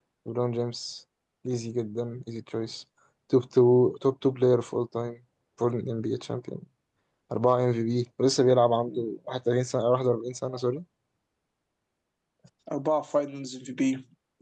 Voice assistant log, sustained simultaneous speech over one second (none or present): none